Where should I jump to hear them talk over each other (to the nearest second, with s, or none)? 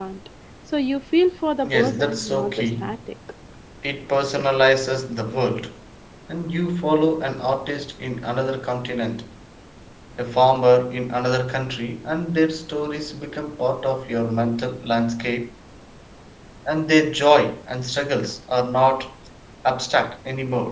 2 s